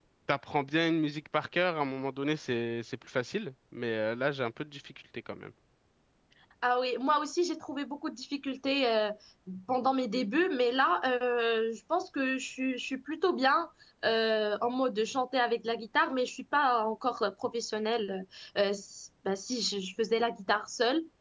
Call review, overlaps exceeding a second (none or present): none